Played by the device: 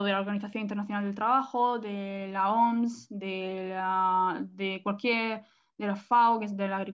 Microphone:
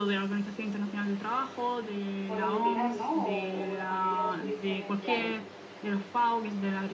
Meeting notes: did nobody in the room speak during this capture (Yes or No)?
No